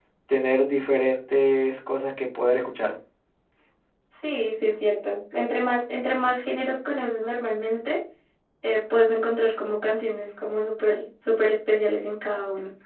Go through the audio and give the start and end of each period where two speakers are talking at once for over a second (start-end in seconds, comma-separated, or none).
none